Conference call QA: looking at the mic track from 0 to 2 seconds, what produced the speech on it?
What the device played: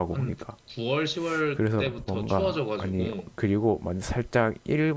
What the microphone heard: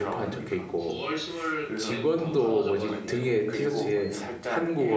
both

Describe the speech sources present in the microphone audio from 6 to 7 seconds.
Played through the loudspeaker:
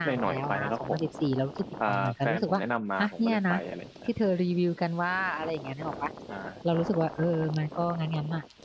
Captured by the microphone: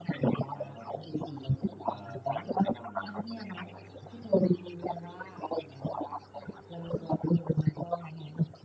echo only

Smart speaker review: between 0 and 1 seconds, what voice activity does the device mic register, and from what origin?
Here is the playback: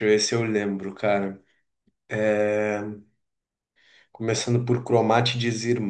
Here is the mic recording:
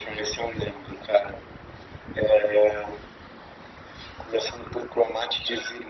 echo only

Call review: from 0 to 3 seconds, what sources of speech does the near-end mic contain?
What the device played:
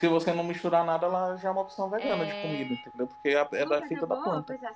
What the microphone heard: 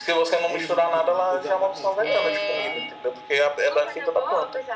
both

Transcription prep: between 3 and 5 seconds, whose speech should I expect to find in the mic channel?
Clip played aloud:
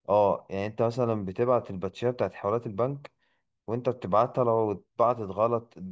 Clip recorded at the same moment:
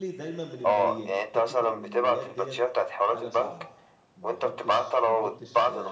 both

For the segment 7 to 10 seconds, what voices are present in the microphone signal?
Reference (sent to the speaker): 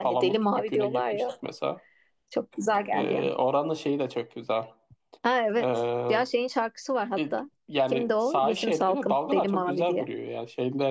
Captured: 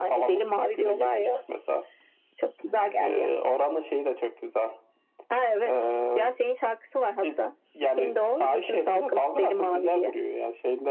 echo only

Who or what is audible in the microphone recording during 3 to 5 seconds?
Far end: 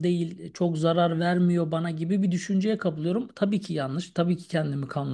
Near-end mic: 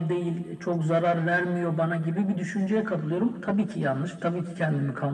echo only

